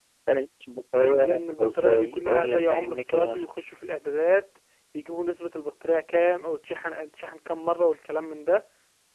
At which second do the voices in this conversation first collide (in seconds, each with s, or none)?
1.0 s